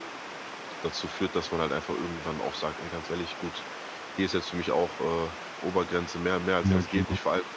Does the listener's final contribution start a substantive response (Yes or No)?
No